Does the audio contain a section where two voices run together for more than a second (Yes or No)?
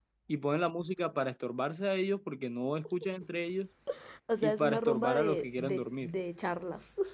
Yes